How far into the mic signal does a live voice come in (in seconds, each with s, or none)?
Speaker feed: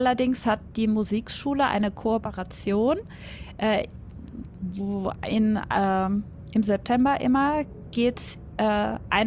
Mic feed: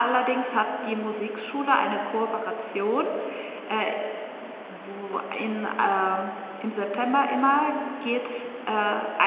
none